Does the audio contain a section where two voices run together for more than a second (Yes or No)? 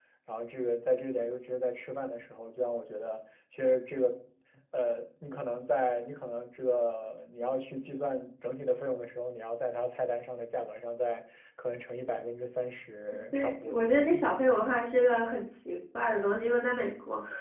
No